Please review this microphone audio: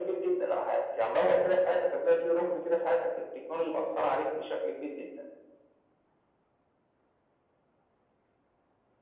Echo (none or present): present